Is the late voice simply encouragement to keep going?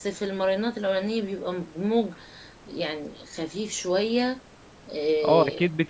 No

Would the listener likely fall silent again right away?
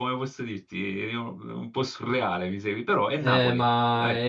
No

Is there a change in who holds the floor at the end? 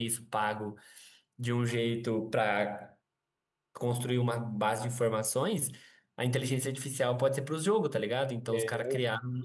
No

